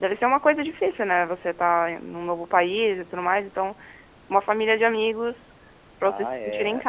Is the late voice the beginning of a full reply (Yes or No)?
Yes